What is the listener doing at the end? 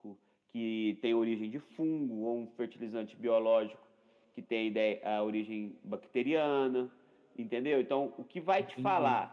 listening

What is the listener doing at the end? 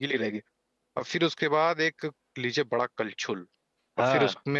listening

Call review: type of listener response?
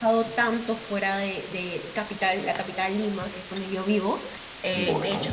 listening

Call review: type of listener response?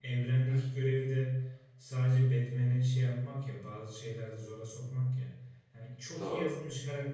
listening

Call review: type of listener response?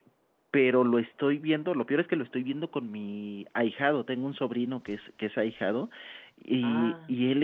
listening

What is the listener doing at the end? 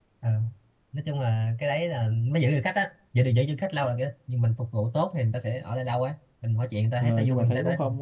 taking over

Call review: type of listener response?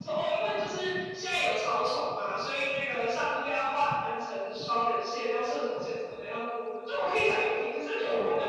listening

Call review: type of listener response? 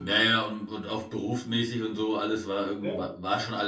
listening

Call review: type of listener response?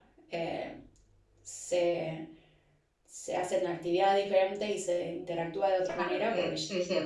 taking over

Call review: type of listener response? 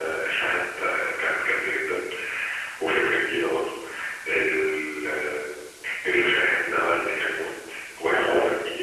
listening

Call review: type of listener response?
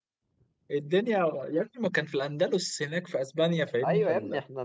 taking over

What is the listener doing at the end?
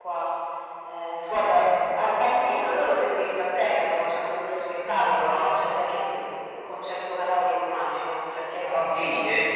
taking over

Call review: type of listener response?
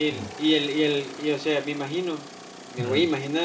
listening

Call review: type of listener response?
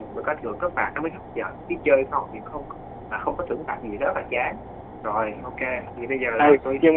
taking over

